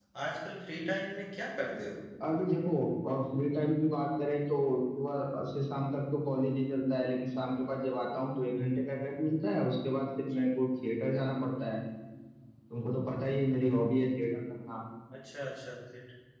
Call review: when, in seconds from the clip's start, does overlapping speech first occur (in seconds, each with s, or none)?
none